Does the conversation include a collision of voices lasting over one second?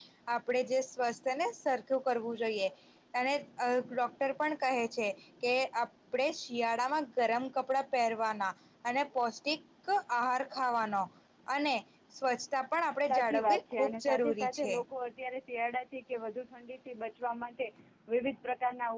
Yes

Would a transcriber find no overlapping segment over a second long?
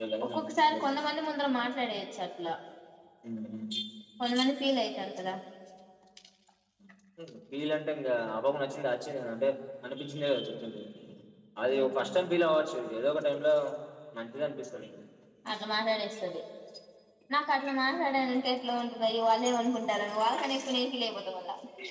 Yes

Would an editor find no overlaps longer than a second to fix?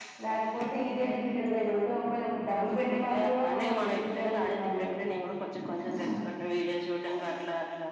No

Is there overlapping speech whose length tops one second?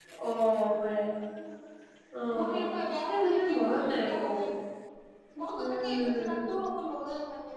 Yes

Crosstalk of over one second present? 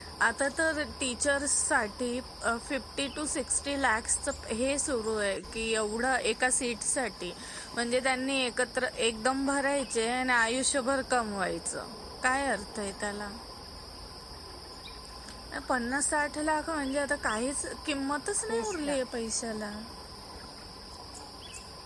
No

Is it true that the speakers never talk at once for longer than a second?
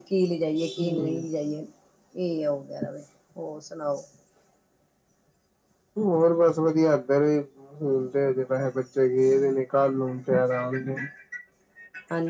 Yes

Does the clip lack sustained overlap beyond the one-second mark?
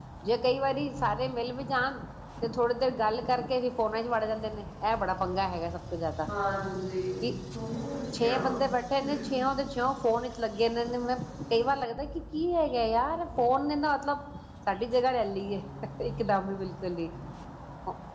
Yes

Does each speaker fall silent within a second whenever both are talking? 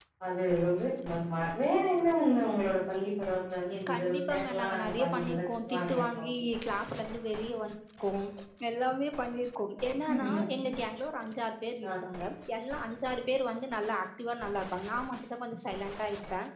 No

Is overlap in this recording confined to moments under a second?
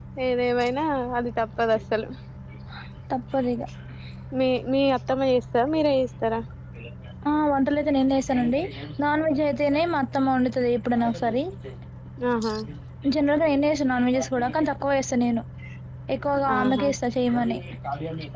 Yes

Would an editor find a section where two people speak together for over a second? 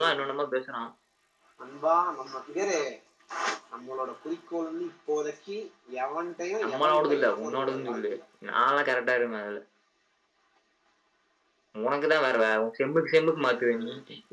Yes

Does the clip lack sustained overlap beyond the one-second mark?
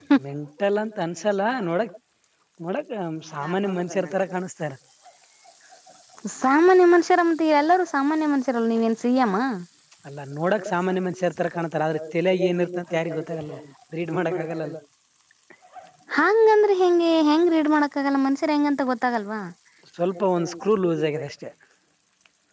No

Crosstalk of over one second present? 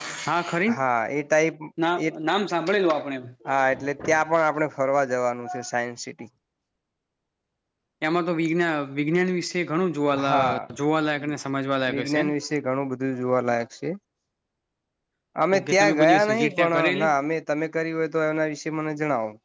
Yes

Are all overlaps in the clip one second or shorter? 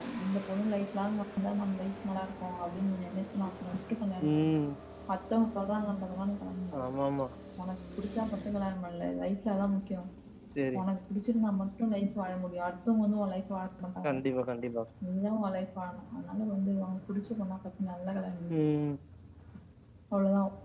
Yes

